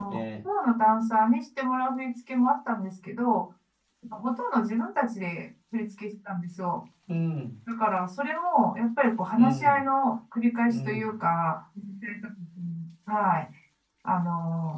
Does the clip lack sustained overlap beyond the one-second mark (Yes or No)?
Yes